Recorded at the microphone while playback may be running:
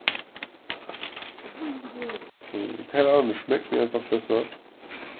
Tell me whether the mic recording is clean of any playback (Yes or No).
Yes